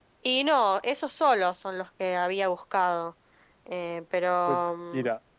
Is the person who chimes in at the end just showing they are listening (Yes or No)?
No